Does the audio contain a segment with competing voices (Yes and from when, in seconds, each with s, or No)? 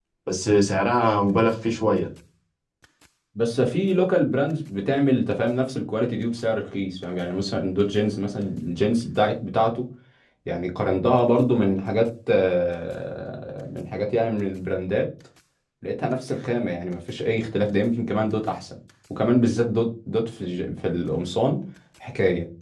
No